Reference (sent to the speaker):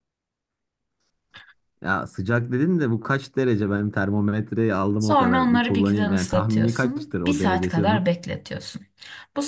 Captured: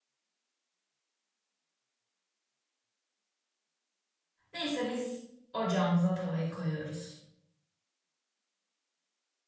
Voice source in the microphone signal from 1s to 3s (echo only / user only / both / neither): neither